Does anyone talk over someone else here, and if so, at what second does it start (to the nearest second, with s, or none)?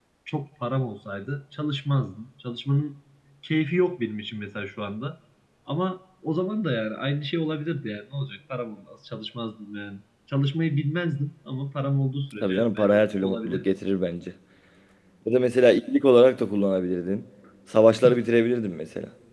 12 s